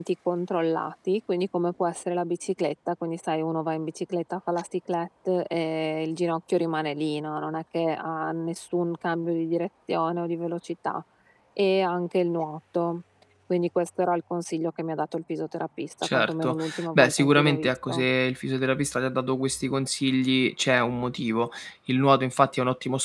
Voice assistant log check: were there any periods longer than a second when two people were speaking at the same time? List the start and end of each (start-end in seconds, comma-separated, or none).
16.0-18.0